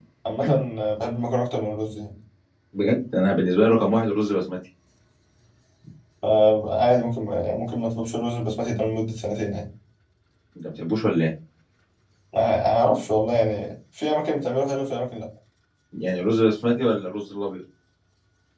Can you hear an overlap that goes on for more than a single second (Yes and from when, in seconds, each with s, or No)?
No